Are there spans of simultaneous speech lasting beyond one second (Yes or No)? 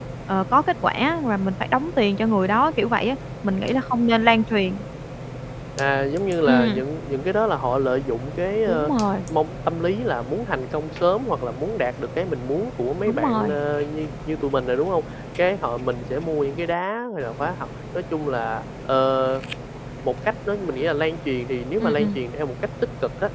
No